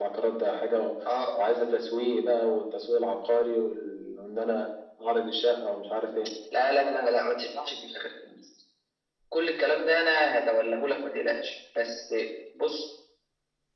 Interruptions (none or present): none